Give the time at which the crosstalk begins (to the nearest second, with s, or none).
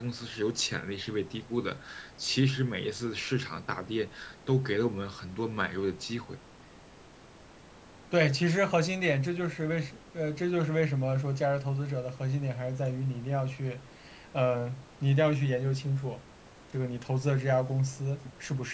none